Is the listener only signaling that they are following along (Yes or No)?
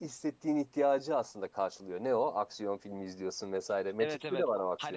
No